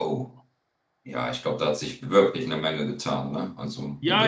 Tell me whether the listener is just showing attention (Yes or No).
No